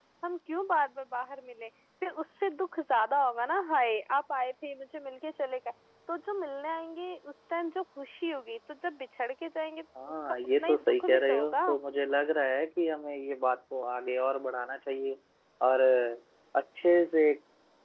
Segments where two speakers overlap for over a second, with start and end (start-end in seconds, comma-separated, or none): 10.1-11.6